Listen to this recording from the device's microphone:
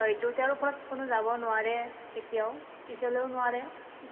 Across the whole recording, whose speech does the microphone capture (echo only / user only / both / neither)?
echo only